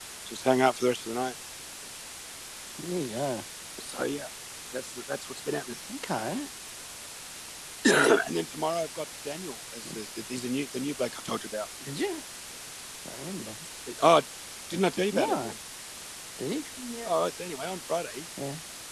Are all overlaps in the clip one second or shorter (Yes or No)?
Yes